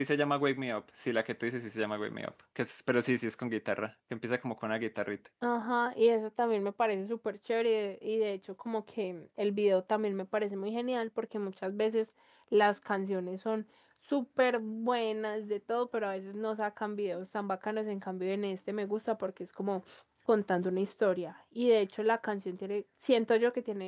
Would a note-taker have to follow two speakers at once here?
No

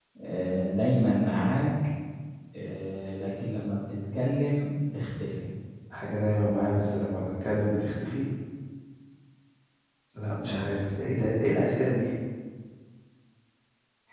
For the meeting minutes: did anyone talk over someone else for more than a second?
No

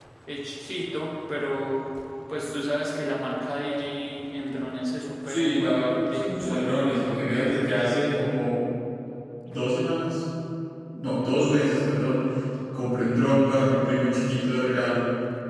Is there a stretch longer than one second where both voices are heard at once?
Yes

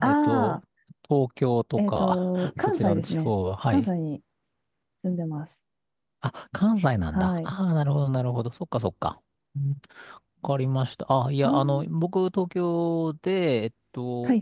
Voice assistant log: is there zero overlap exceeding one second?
No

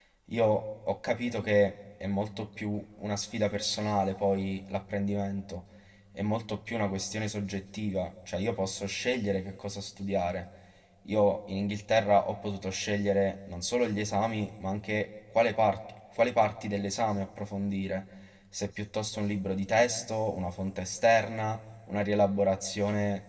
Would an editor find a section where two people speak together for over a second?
No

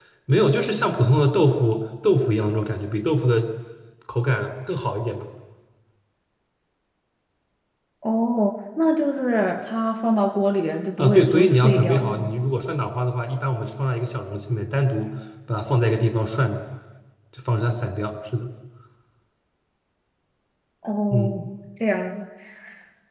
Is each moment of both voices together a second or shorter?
No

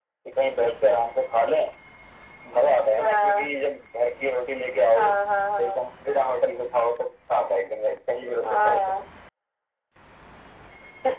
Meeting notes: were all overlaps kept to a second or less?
Yes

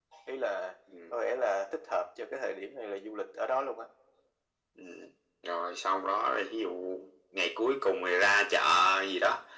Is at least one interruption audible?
No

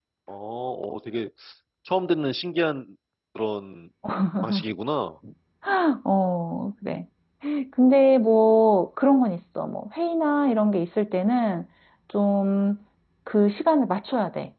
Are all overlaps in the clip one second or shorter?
Yes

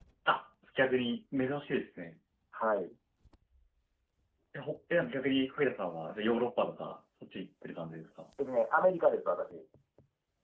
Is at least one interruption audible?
No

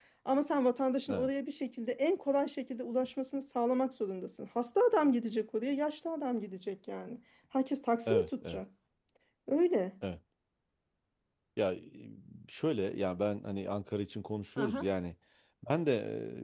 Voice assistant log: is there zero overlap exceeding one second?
Yes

